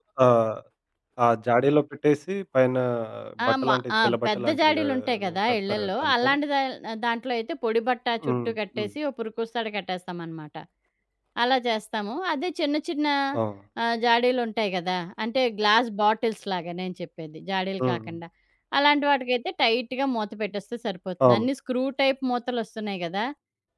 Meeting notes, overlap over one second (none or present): present